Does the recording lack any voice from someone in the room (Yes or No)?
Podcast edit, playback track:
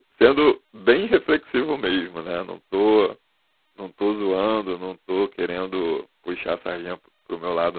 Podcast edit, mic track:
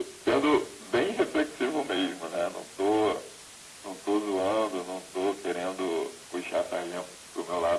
Yes